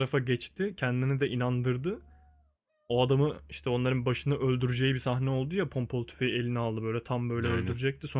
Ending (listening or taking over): listening